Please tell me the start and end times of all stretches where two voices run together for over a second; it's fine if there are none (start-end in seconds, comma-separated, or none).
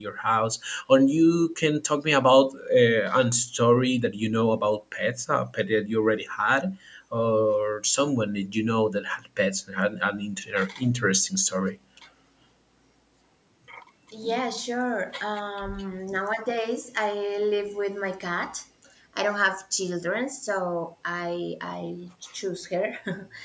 none